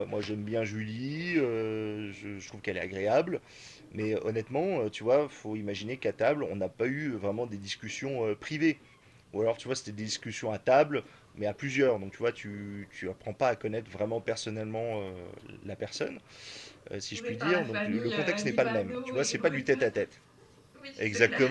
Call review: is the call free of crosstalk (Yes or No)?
No